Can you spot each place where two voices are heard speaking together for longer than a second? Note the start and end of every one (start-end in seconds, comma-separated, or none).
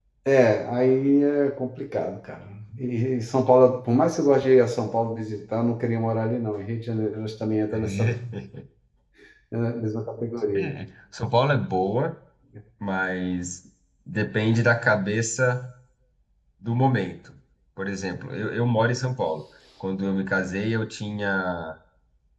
none